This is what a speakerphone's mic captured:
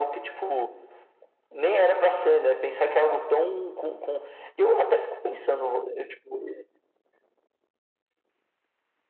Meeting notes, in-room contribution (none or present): none